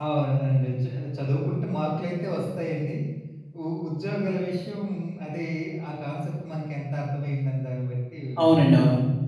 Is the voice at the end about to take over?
Yes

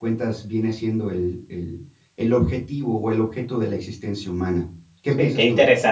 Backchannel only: No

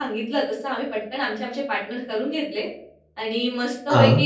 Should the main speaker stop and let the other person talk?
No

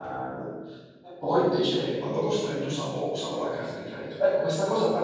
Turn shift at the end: No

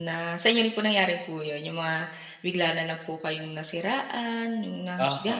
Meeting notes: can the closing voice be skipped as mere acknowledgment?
No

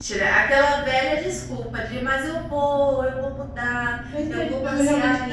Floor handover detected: Yes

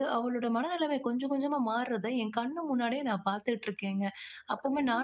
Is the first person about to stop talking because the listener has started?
No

